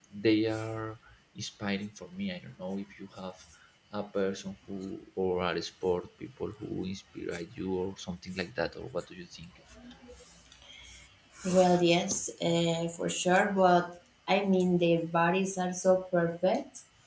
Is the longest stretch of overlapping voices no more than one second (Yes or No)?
Yes